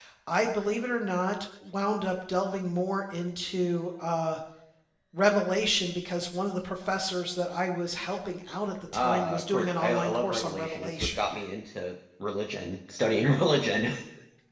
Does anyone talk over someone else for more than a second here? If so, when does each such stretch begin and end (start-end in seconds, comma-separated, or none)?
8.9-11.4